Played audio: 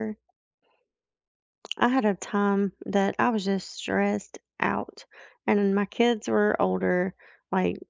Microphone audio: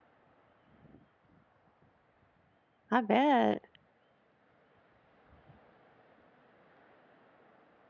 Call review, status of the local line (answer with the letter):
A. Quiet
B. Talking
B